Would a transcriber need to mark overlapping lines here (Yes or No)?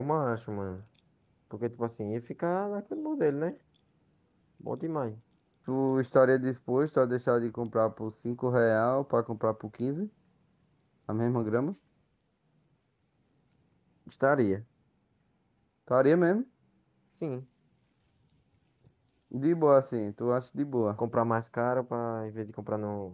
No